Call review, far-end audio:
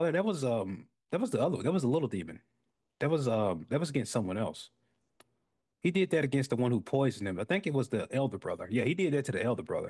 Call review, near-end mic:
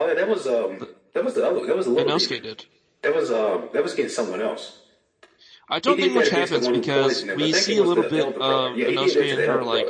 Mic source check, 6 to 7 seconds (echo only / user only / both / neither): both